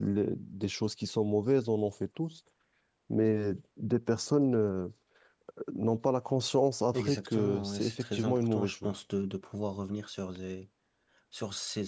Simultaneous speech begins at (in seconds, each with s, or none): 6.9 s